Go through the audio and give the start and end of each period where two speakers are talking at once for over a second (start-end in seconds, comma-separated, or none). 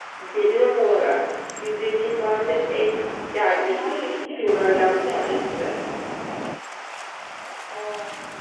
3.6-5.4